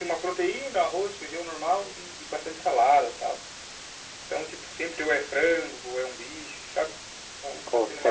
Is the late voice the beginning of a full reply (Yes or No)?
Yes